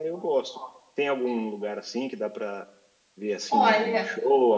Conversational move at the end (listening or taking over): listening